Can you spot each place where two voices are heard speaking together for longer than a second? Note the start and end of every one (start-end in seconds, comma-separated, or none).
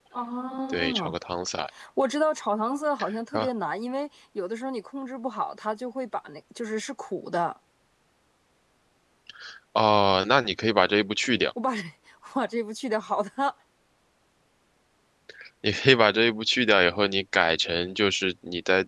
none